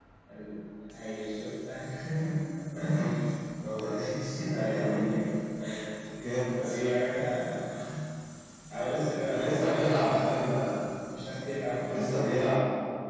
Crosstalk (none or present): present